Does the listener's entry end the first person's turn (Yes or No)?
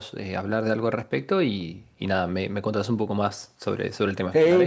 Yes